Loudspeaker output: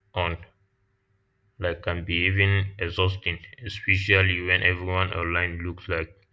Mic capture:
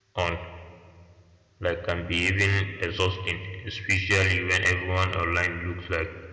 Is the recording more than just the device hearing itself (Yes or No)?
No